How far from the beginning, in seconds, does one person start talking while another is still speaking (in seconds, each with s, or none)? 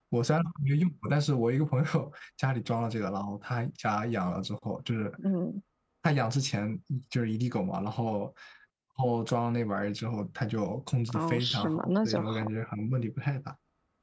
11.1 s